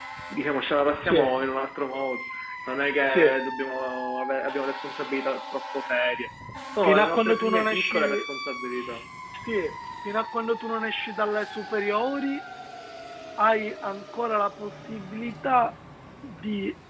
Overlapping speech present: Yes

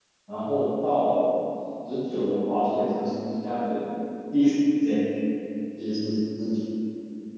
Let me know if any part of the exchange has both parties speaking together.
No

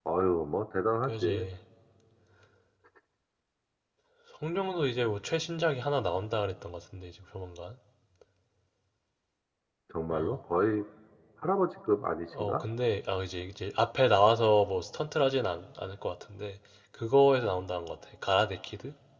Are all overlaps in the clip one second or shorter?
Yes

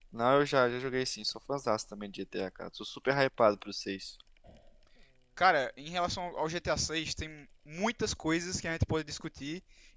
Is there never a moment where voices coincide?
Yes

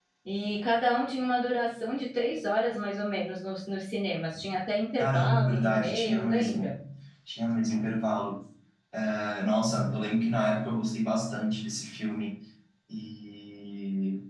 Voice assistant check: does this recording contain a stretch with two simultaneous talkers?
Yes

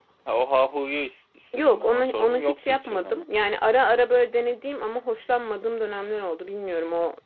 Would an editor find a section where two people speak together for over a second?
Yes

